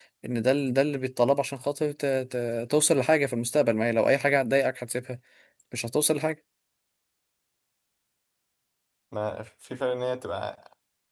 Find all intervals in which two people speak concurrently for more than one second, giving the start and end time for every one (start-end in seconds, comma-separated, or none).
none